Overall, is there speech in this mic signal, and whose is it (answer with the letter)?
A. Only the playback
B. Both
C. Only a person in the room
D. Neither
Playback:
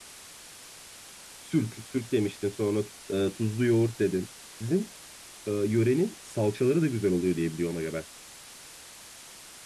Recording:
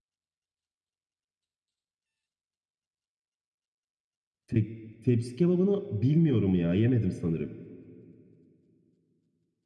C